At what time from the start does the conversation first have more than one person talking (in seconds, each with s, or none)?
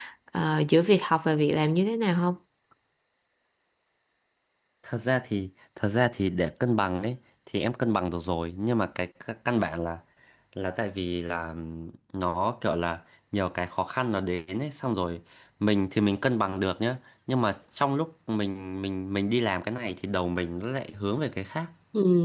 none